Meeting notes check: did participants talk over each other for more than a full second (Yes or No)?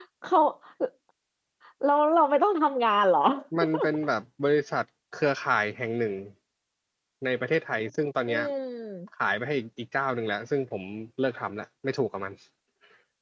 No